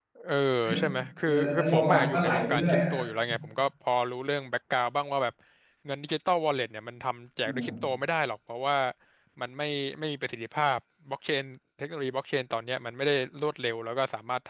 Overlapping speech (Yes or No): Yes